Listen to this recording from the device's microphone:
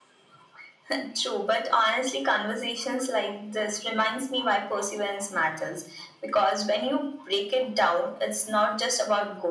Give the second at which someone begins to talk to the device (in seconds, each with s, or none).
none